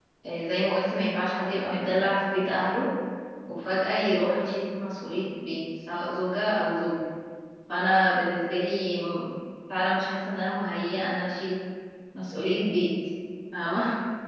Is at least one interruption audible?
No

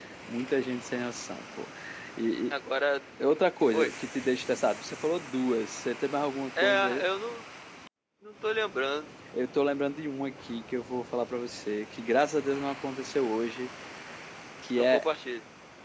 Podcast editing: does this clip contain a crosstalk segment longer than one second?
No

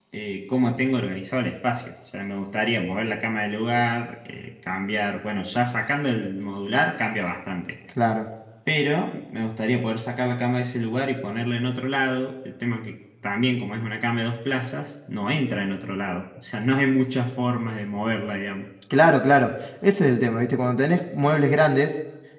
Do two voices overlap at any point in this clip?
No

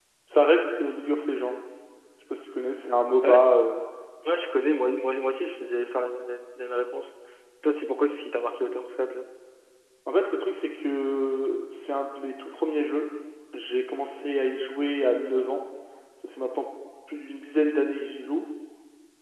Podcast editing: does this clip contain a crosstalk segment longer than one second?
No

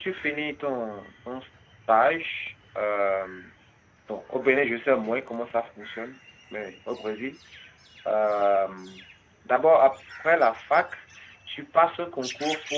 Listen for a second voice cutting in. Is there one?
No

